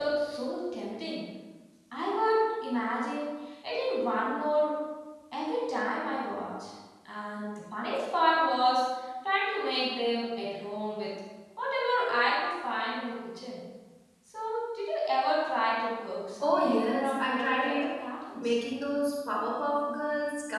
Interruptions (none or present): present